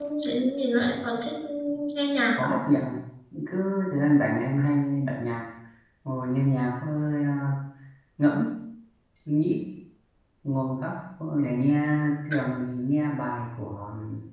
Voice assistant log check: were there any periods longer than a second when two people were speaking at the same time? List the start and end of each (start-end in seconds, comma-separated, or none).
none